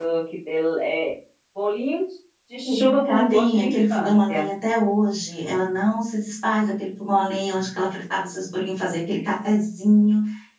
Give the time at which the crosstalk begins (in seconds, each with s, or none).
2.5 s